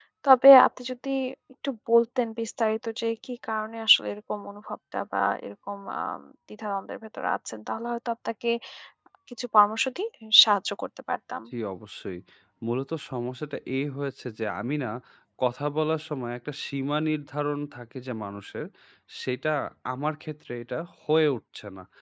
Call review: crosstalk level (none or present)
none